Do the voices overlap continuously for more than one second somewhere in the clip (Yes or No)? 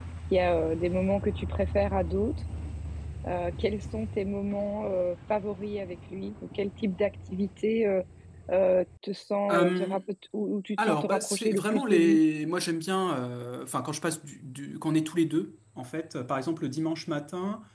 Yes